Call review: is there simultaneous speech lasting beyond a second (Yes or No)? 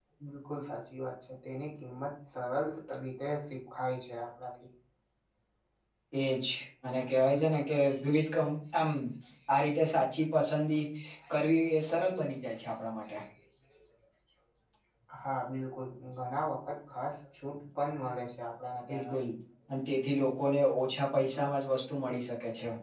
No